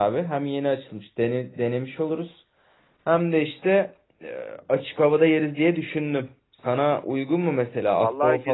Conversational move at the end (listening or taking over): taking over